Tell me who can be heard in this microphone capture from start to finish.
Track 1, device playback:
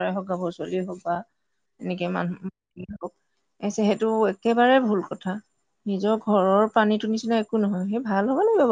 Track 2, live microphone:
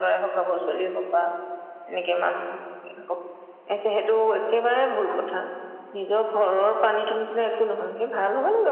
echo only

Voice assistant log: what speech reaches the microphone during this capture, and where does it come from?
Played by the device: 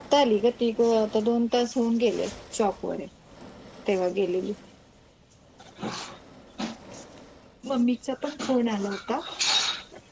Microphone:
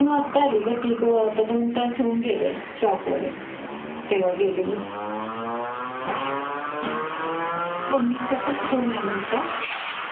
echo only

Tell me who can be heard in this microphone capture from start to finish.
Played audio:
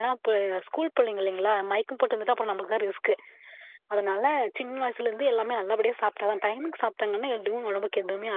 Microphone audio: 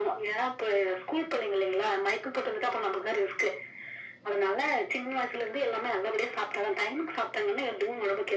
echo only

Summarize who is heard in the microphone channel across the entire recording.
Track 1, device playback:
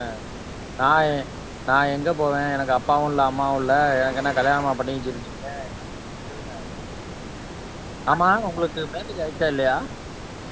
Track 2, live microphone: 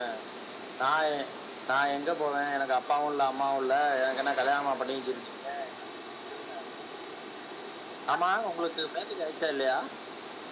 echo only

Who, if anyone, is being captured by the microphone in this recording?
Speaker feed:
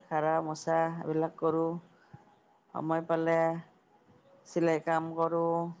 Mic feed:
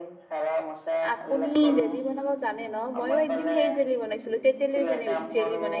both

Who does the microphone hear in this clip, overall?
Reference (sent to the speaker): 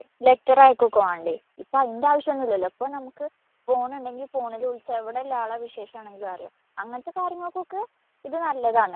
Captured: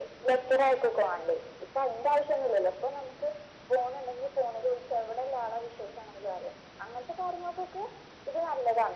echo only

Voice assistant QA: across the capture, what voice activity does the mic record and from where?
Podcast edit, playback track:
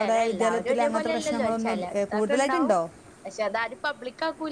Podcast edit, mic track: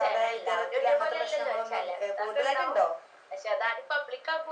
echo only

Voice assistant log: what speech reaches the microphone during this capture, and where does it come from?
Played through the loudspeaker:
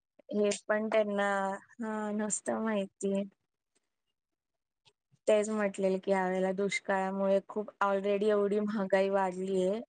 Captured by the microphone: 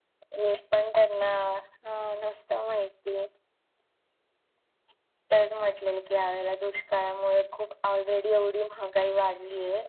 echo only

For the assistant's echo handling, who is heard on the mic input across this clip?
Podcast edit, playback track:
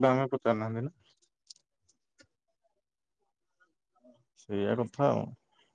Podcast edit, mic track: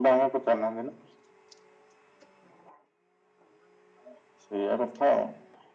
echo only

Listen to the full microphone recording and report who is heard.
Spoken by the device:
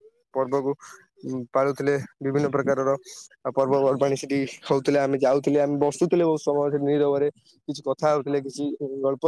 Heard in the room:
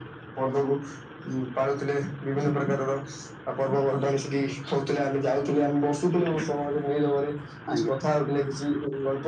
both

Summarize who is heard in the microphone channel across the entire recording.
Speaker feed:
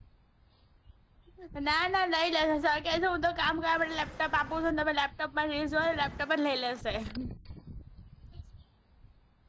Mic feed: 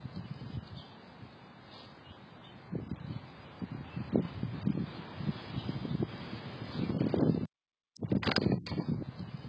neither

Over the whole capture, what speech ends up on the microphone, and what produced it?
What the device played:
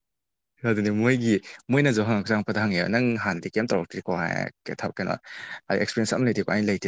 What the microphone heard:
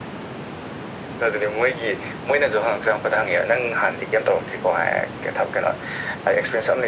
echo only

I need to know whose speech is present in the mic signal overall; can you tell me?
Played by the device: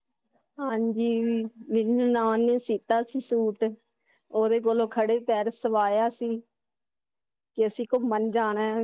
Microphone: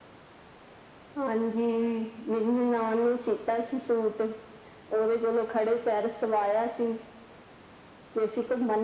echo only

